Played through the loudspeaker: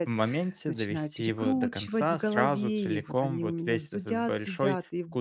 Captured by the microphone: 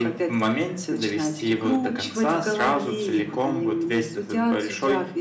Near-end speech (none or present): none